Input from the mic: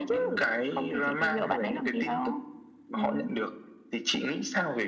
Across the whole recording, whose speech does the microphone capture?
echo only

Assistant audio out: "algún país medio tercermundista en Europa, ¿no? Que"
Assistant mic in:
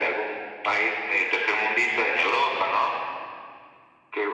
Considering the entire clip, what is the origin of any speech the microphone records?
echo only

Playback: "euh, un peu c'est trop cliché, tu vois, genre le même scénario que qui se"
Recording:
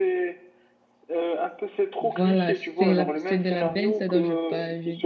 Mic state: both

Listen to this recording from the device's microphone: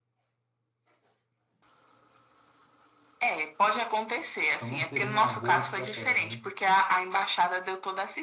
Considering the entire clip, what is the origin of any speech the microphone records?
both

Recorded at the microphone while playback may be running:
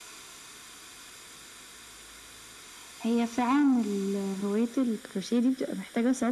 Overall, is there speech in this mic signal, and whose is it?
echo only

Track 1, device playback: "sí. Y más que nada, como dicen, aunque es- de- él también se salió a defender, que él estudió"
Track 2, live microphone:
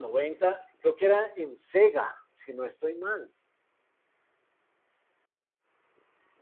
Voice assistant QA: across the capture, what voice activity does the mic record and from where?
user only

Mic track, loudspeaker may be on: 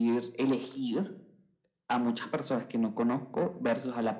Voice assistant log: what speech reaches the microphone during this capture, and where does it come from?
echo only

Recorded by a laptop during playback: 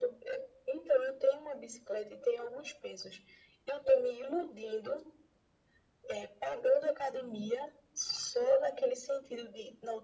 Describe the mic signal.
echo only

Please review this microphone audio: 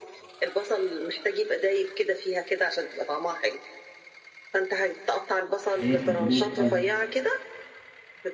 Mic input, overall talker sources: both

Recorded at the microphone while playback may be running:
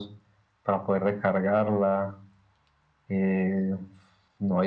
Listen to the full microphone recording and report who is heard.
echo only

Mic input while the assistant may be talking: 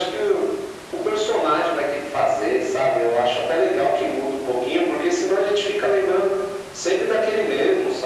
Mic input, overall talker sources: echo only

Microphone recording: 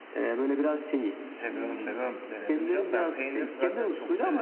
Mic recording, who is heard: both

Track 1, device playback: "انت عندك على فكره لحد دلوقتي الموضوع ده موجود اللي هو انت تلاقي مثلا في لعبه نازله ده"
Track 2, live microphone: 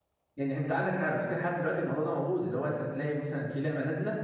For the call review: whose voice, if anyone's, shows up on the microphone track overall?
echo only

